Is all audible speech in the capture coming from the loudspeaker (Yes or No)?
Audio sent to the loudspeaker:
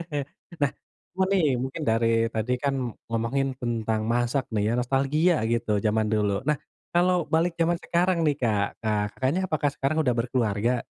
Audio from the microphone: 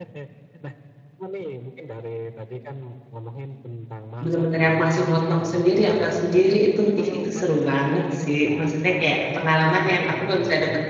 No